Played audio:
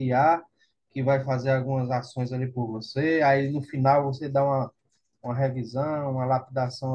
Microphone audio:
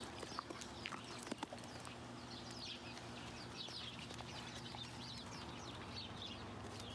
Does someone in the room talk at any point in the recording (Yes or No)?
No